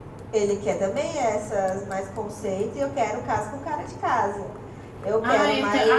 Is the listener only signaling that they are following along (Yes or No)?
No